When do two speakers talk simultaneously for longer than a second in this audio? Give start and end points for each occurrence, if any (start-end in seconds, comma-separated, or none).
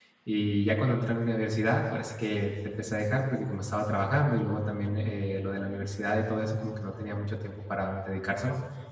none